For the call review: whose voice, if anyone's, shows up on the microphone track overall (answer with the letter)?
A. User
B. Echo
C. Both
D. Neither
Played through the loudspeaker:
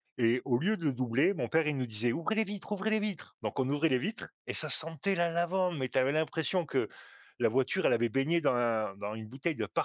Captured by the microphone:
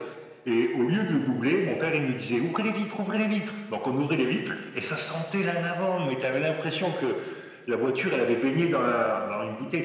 B